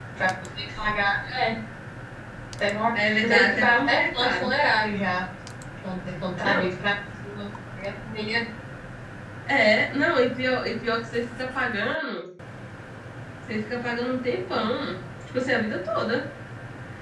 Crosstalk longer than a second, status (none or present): present